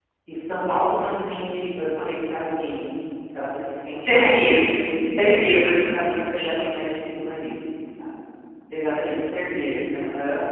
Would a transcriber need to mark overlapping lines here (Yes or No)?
Yes